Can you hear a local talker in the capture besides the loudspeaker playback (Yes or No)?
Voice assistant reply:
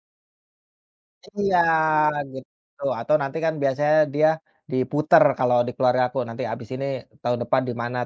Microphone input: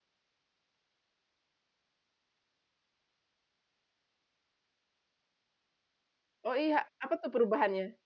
Yes